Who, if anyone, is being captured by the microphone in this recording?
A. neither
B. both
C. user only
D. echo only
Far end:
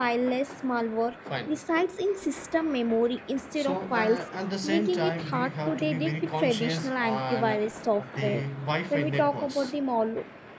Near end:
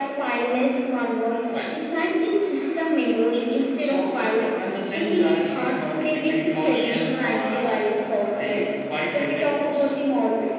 D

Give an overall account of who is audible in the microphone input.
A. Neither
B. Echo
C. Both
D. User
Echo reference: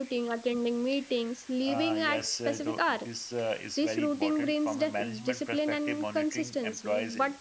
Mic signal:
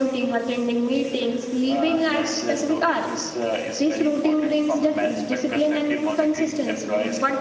B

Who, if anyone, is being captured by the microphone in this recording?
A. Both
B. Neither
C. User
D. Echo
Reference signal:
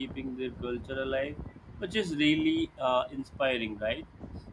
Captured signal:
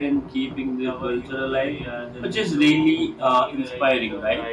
A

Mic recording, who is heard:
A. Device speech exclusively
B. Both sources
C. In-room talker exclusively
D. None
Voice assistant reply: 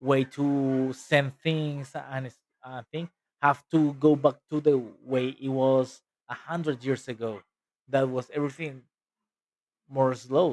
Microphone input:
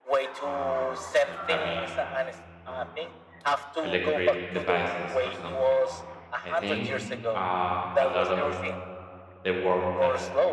B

